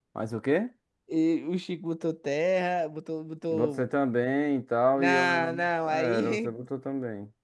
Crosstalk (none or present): present